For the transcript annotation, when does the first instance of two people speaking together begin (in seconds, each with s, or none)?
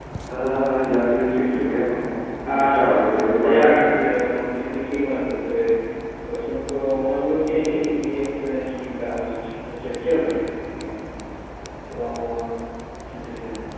2.5 s